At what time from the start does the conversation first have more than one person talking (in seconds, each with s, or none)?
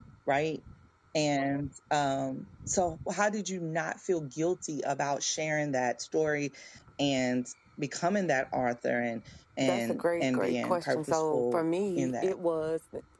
9.6 s